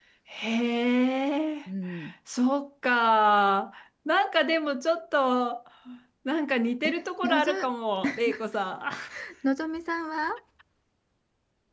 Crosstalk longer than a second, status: none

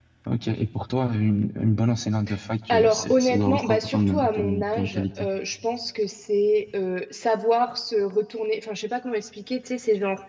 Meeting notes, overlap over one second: present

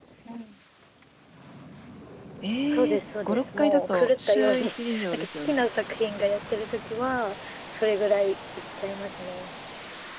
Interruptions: present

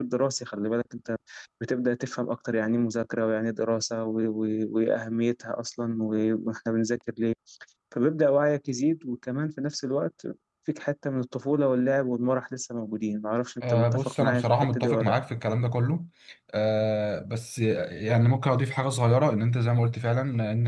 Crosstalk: present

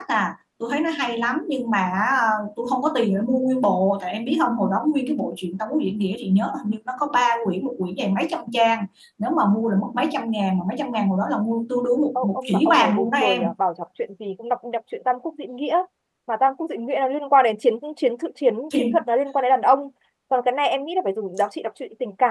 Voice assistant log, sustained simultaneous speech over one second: present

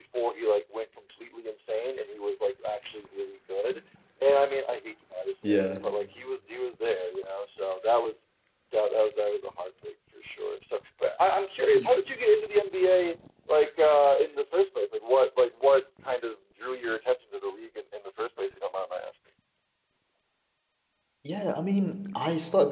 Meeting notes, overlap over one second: none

